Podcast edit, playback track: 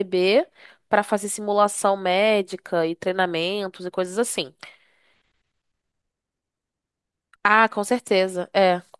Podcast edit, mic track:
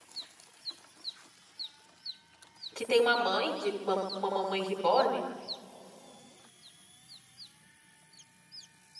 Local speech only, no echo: que tem uma mãe de uma, uma mamãe reborn

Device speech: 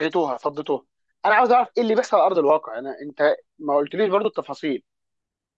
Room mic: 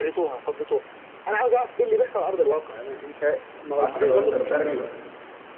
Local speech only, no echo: حتى لو انت مشارك بالف...

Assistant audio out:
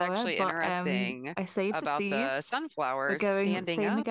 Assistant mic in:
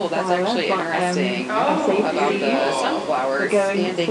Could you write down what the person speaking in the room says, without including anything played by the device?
Oh, beautiful.

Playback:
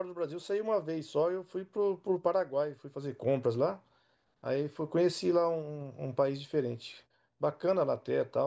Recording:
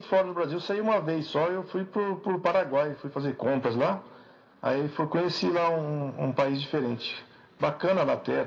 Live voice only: none

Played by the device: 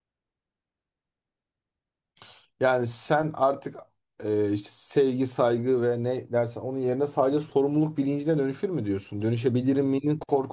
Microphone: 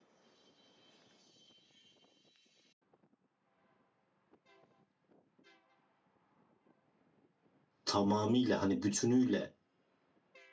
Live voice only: tamamıyla hani bütünüyle

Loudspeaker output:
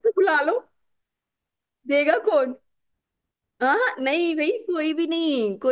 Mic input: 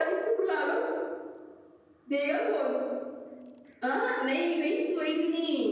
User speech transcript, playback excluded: none

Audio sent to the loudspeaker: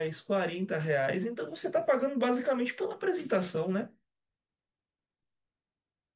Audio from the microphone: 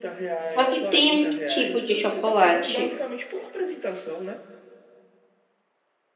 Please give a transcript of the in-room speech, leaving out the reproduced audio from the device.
Só que tem um tipo de chocolate

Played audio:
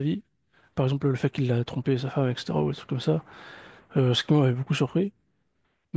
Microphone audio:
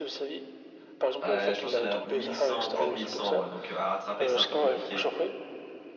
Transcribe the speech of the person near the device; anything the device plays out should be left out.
Ouais, je pense qu'il y en a 1100, plus de 1100, ouais. Donc euh, à rattraper, c'est un peu compliqué.

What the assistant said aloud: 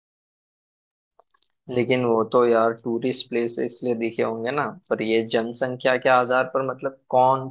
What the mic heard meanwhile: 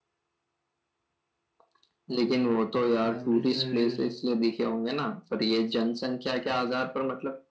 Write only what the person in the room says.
तो मैं अमृतसर

